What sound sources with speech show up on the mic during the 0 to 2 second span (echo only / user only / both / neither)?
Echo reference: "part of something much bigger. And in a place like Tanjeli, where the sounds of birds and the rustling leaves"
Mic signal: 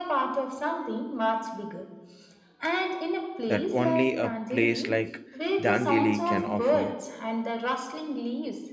echo only